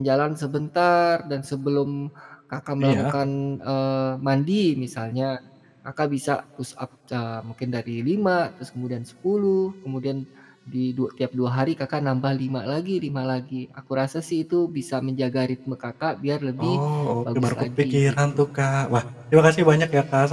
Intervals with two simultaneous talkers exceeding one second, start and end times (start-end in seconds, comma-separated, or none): 17.2-18.5